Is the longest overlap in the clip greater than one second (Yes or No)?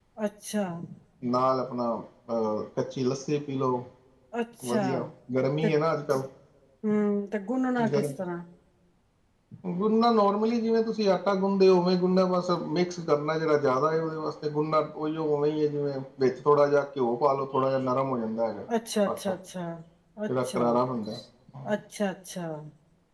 No